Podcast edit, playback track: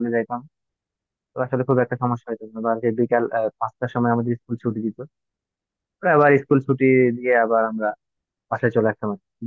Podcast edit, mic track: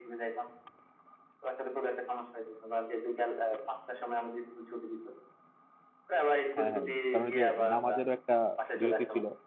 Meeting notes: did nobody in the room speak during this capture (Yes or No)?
No